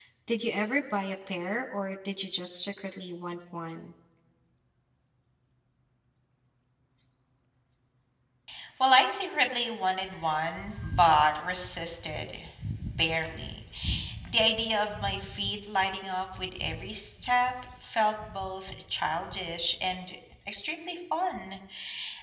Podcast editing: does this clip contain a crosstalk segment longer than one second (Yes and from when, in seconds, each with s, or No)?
No